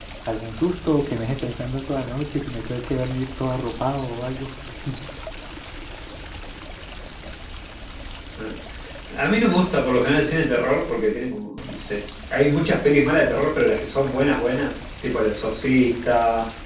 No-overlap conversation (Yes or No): Yes